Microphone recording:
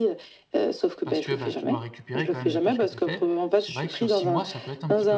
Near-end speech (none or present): present